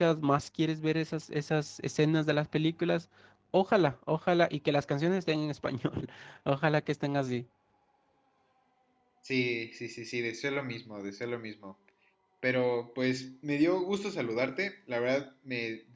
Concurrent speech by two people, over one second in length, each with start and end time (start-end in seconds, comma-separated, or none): none